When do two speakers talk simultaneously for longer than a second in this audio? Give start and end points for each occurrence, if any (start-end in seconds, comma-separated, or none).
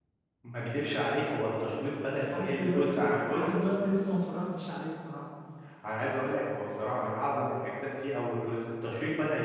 2.1-3.5